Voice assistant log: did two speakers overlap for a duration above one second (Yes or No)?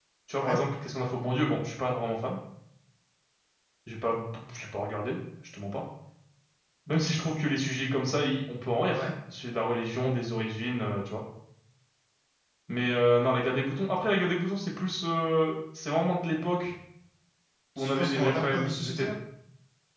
Yes